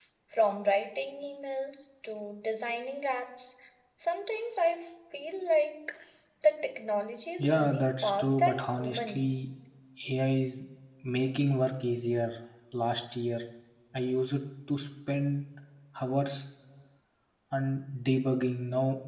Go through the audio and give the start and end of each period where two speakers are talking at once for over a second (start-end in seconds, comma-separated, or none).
7.4-9.4